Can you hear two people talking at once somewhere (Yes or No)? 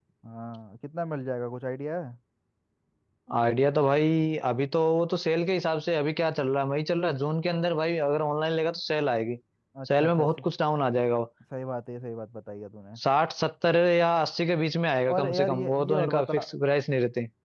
Yes